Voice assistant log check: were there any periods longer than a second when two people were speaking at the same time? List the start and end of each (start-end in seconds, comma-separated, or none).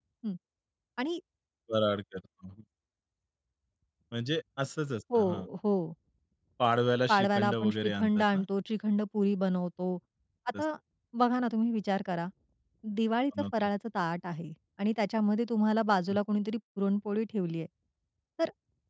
7.1-8.4